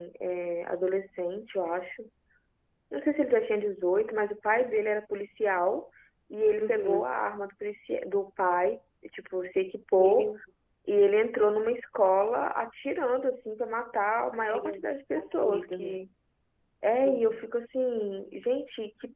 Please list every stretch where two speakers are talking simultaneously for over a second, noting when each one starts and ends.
14.4-16.0

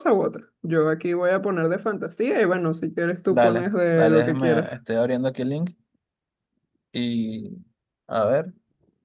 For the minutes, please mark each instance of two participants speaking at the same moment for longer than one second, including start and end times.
3.3-4.7

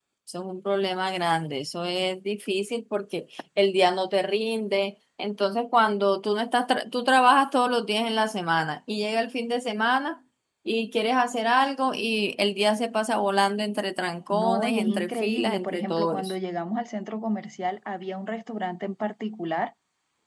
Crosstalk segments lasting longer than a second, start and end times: 14.3-16.3

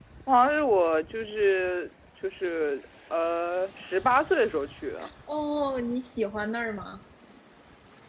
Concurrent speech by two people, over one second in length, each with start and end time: none

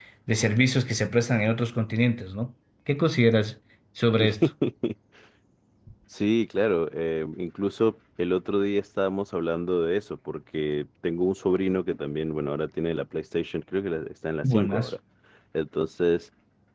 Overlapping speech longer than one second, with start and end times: none

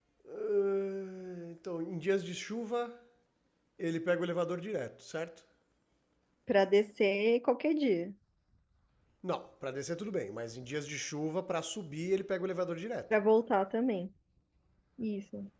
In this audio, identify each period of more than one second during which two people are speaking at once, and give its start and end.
none

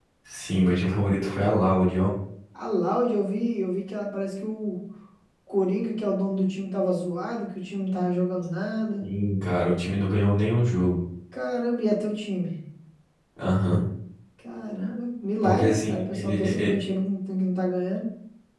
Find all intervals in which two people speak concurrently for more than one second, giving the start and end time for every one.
15.4-16.7

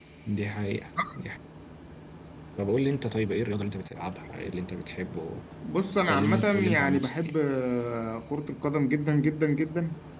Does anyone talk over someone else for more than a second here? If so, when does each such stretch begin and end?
6.1-7.3

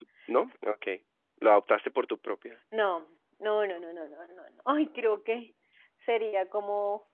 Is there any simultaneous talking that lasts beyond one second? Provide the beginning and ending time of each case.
none

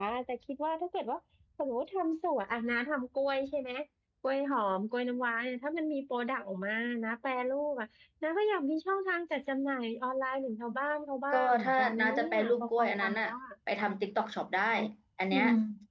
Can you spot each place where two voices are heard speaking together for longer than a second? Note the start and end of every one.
11.3-13.3

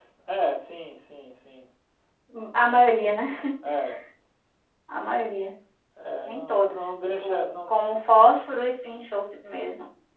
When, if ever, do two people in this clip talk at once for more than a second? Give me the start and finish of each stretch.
6.2-7.5

